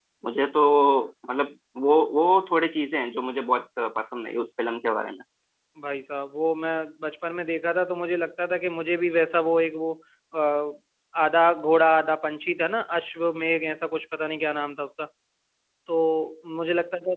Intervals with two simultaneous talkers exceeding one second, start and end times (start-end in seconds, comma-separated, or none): none